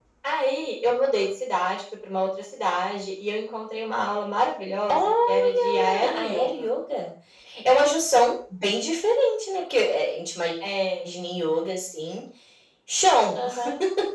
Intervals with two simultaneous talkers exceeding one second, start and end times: 4.9-6.7

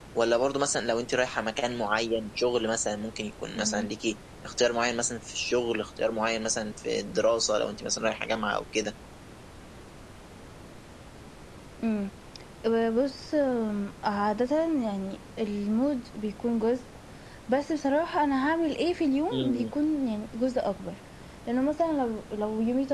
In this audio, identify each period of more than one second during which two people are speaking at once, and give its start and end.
none

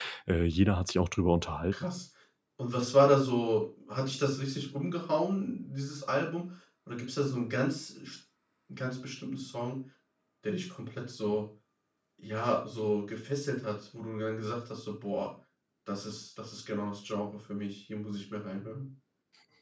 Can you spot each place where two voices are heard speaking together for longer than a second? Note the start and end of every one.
none

